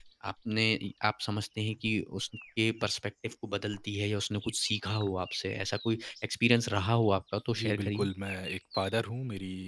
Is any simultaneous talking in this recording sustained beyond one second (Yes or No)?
No